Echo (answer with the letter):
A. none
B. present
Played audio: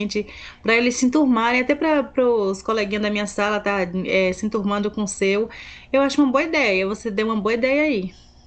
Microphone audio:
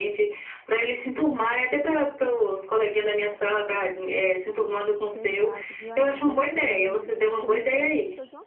B